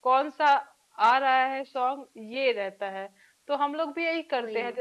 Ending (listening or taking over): listening